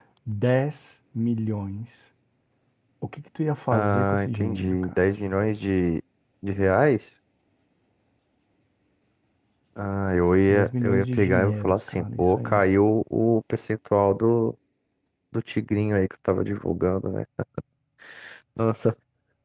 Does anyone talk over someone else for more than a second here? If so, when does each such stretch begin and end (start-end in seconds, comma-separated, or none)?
3.7-4.9, 10.5-12.7